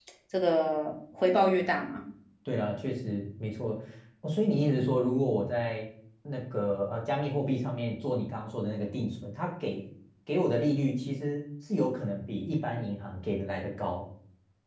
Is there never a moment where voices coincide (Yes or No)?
Yes